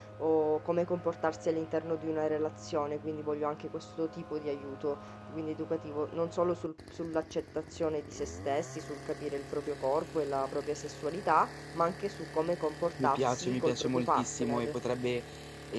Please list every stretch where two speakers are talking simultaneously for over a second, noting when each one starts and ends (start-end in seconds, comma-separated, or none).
13.0-14.8